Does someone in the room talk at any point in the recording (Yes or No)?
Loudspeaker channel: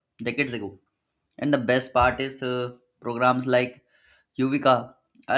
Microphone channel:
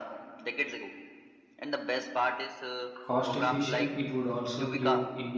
Yes